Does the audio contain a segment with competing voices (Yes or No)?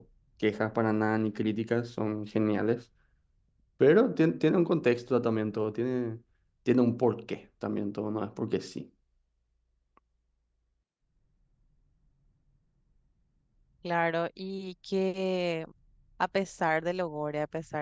No